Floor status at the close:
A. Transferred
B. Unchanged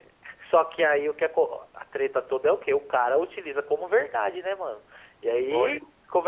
B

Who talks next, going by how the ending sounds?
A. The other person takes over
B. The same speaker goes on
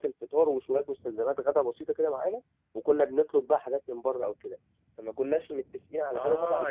A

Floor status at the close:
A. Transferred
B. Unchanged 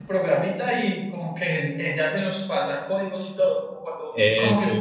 B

